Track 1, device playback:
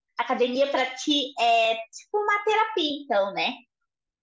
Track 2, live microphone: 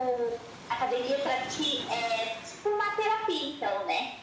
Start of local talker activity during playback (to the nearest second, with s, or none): none